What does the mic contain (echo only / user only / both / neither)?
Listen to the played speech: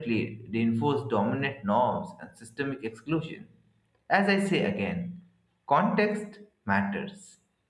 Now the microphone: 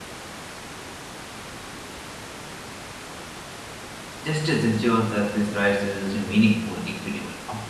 user only